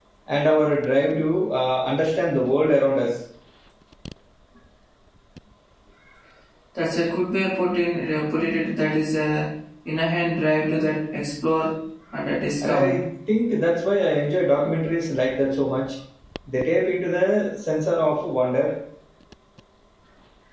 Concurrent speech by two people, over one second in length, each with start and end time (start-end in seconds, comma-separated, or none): none